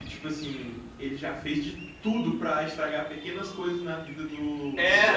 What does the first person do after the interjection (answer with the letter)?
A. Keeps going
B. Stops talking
B